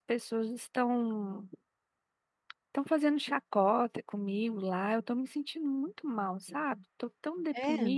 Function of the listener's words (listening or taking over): listening